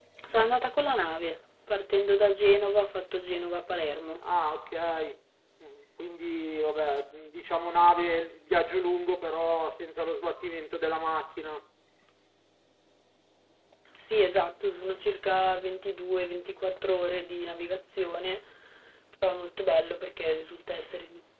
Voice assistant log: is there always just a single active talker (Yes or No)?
Yes